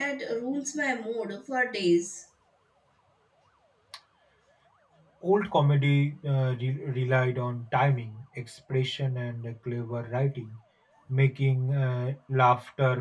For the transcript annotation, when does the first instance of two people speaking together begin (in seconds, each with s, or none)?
none